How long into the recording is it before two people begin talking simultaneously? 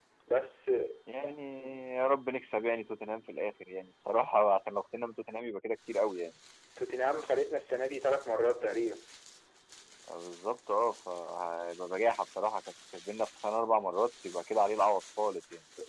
none

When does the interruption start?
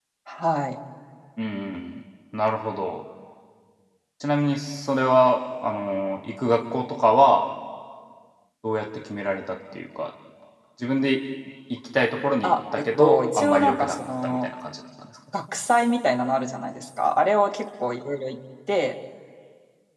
12.4 s

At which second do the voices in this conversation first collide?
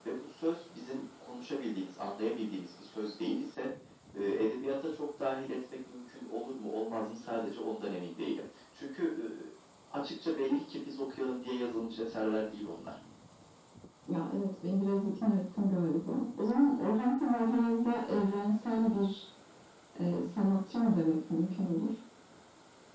none

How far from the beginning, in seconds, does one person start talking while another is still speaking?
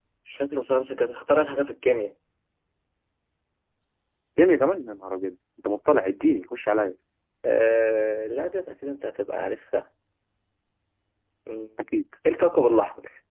none

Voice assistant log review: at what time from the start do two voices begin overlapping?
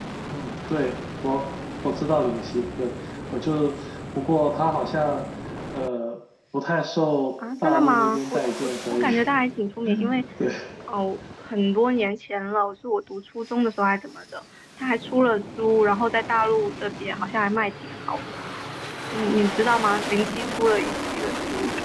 7.6 s

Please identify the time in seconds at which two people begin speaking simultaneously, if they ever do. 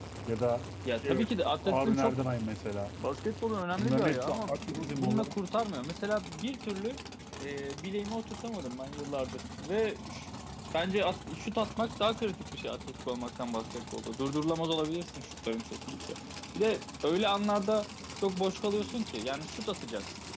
1.0 s

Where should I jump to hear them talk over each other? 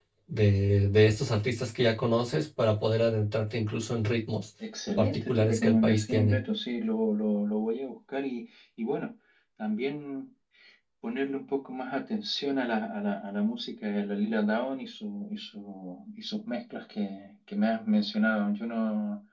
5.0 s

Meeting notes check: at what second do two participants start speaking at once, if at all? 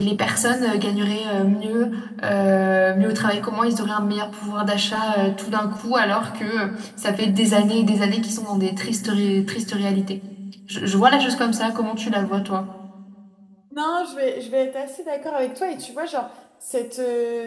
none

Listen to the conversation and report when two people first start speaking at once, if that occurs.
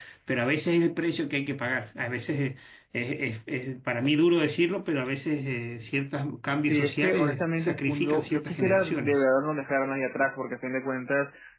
6.7 s

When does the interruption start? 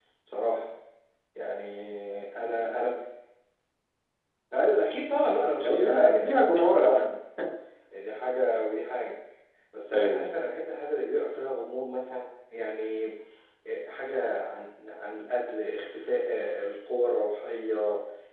5.6 s

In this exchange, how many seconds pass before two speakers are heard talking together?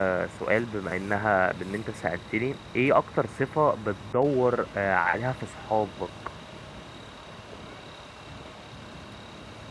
none

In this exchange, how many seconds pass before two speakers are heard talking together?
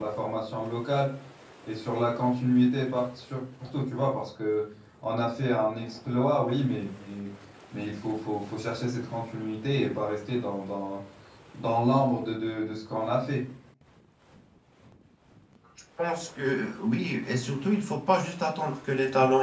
none

